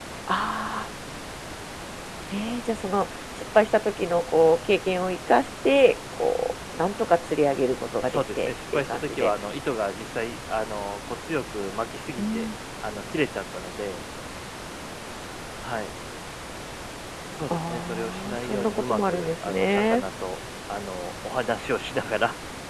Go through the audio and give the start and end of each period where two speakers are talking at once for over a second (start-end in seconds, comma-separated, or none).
8.0-9.3, 17.5-20.0